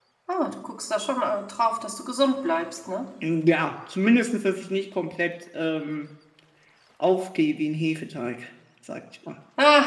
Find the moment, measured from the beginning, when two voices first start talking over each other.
none

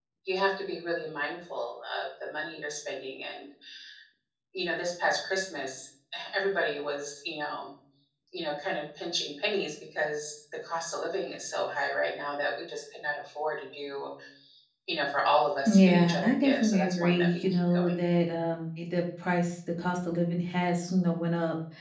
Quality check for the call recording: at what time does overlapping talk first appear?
15.7 s

